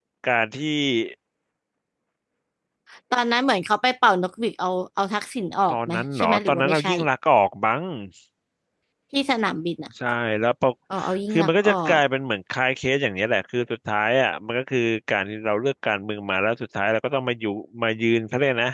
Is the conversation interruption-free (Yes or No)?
No